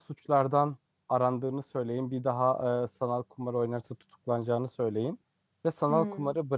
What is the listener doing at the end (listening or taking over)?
listening